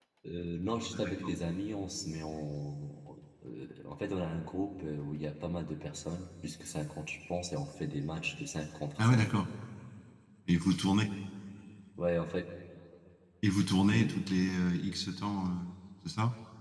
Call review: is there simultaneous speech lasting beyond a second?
No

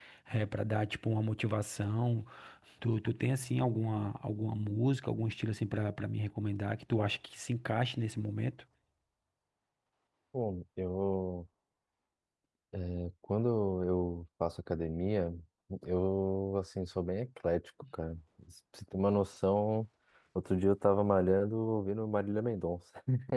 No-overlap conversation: Yes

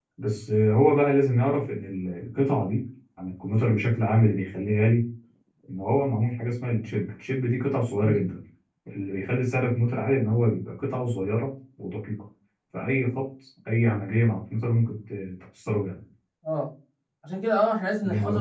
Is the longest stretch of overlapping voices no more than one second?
Yes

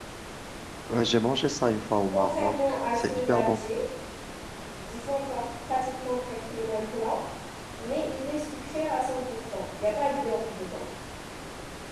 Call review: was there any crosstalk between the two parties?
Yes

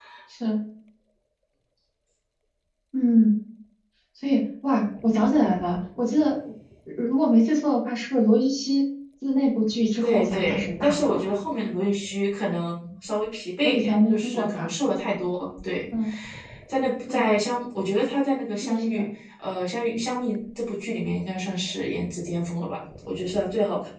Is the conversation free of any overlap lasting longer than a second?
No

